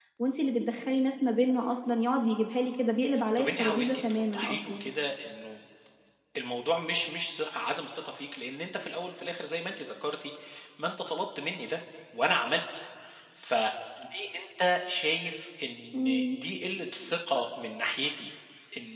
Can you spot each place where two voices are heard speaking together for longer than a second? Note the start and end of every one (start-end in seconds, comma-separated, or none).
3.4-4.9